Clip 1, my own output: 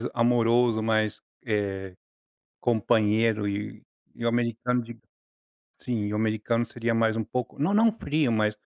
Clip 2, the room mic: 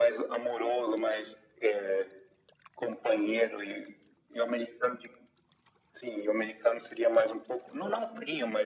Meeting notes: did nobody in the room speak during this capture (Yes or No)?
Yes